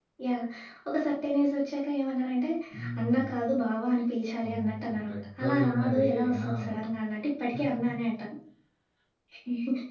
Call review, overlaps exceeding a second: present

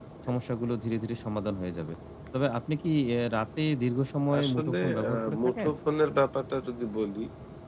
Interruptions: present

